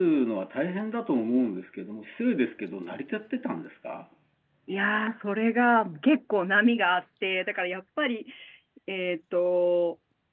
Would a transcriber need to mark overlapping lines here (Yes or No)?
No